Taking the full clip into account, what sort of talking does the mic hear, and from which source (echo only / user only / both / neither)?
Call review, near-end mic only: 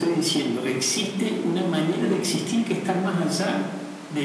echo only